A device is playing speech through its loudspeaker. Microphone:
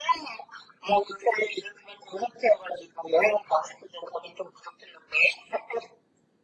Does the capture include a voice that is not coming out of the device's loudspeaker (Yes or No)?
No